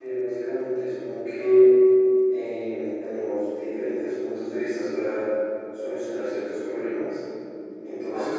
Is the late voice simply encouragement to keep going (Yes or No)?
Yes